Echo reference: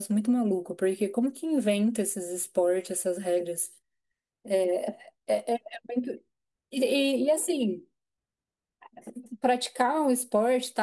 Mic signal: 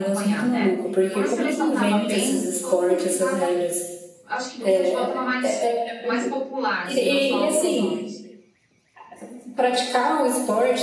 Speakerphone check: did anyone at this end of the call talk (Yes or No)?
Yes